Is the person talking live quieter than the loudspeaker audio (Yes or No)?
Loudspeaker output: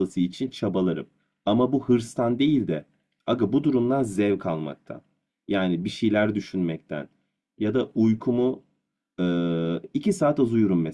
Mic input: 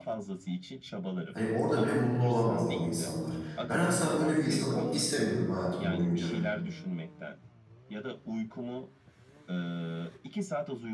No